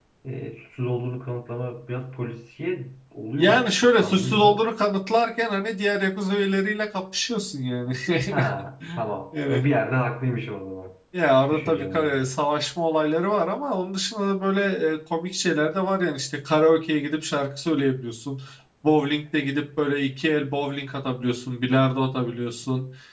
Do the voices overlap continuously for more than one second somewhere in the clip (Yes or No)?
Yes